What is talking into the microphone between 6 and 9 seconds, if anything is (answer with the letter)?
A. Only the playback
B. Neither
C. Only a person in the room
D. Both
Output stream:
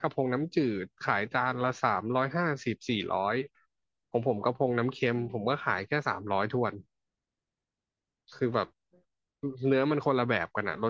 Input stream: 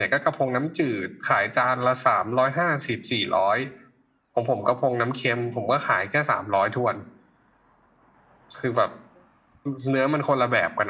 A